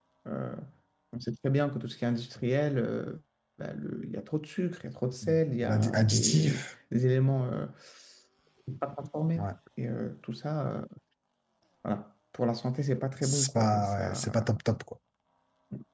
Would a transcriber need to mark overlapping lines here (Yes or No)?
Yes